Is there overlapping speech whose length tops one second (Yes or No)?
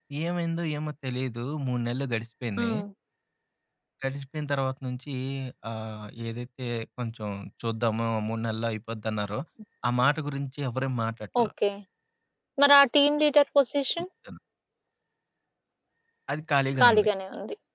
No